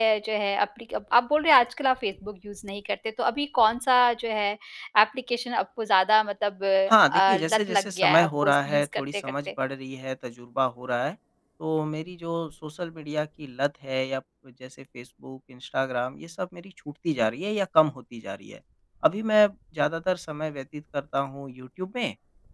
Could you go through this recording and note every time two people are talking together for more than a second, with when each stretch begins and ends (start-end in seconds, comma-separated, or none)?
6.9-9.5